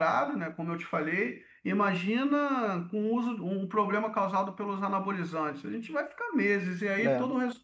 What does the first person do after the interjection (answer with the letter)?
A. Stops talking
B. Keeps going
B